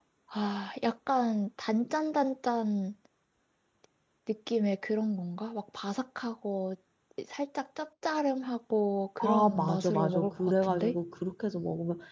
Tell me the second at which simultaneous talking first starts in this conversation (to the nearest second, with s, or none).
9 s